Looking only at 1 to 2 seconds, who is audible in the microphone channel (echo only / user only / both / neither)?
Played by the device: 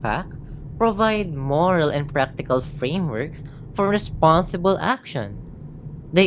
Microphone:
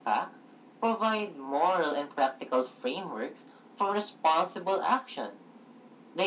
echo only